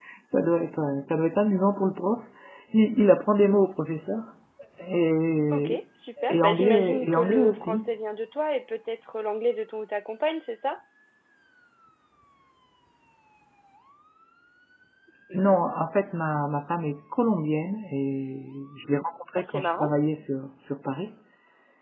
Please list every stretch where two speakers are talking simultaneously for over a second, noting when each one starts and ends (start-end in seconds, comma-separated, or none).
6.3-7.8